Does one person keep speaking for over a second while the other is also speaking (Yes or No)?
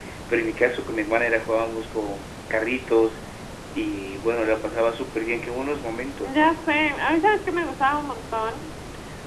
No